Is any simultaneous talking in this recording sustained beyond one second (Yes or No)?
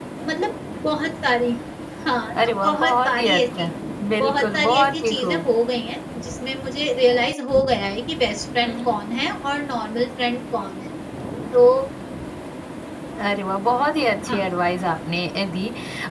Yes